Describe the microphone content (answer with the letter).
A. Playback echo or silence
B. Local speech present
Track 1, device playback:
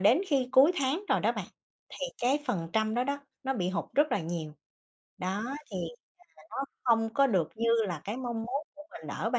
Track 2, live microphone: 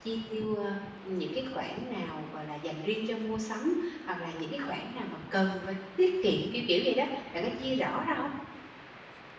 B